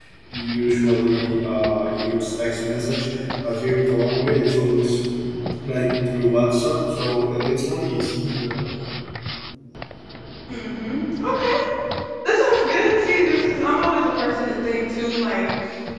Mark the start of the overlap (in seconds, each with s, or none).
none